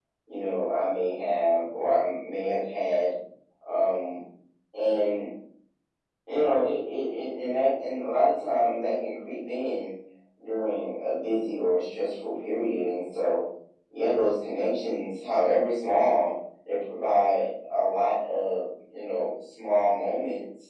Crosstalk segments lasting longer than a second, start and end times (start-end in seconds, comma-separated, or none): none